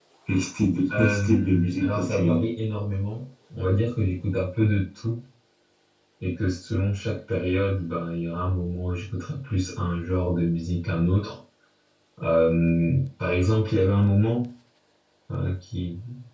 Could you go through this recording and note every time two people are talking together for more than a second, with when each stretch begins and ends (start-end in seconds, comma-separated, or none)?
0.9-2.4